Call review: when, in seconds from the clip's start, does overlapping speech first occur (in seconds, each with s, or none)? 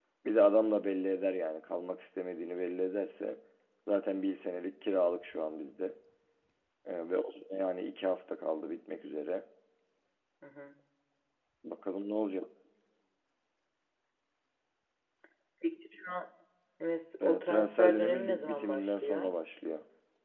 17.2 s